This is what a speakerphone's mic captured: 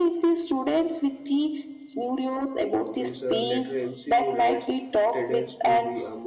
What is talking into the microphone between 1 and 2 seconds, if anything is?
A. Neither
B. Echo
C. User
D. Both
B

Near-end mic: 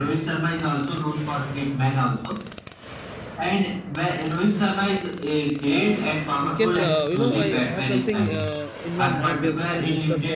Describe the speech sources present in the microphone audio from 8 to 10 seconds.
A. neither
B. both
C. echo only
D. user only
B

